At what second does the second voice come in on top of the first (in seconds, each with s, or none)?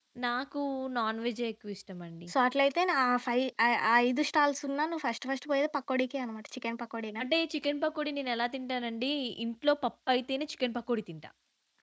none